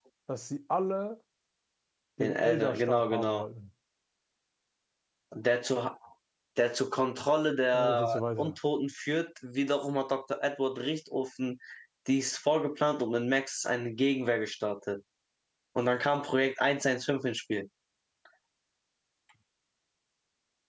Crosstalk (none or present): present